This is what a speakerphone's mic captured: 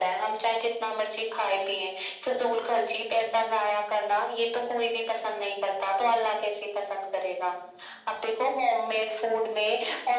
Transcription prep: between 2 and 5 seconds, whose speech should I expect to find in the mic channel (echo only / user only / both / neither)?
echo only